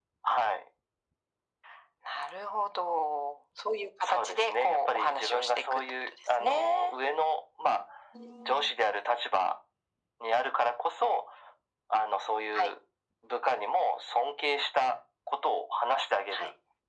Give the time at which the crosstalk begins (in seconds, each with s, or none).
4.0 s